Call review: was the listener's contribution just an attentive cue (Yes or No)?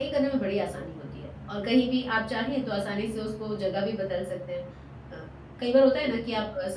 Yes